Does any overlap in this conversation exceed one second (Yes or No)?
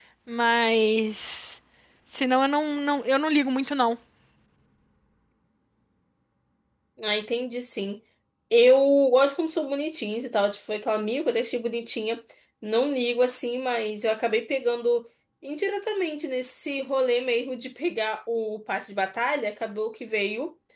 No